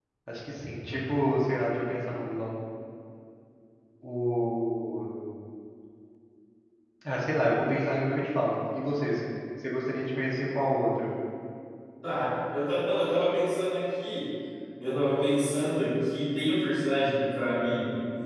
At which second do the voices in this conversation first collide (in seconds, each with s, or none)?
none